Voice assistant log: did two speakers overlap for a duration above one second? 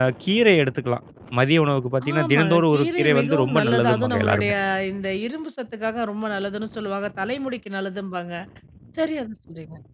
Yes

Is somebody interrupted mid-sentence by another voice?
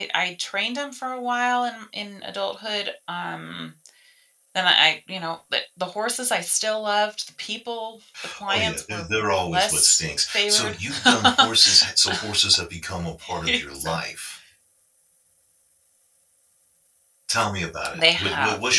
Yes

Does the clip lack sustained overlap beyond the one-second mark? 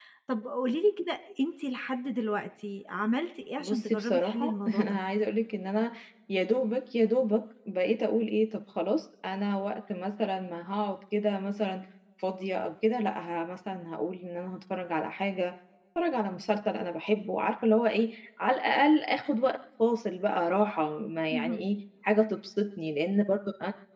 No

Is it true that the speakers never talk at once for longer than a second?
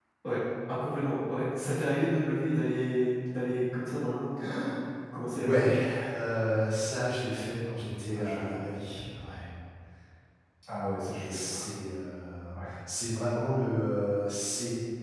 Yes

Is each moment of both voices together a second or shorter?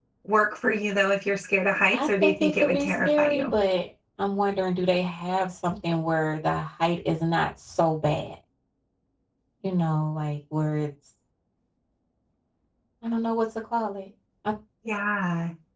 No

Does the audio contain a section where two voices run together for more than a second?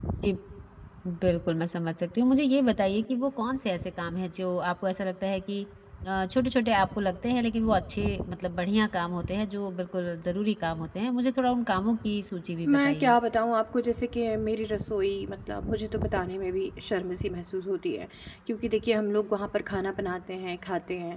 No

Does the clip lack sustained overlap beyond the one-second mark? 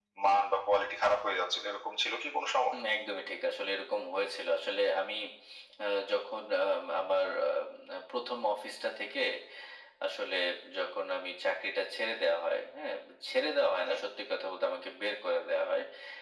Yes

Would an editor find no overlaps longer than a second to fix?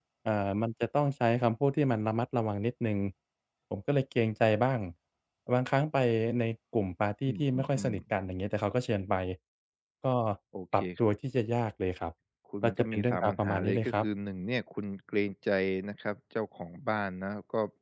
No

